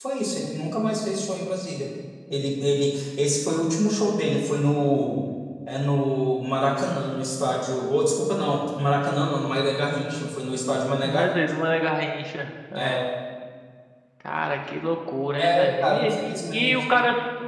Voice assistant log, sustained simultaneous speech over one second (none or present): present